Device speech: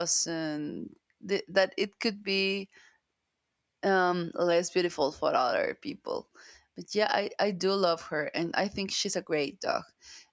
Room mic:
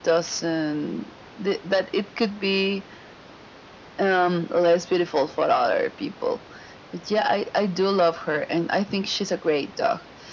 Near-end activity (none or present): none